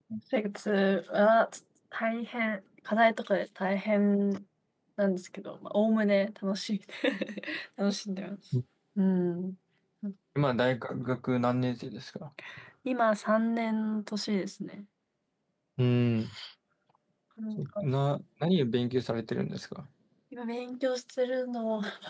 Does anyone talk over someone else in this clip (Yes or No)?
No